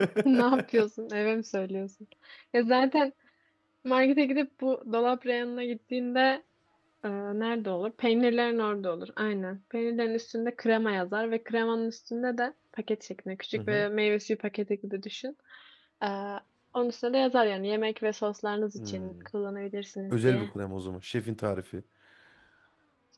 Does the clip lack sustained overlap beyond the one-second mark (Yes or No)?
Yes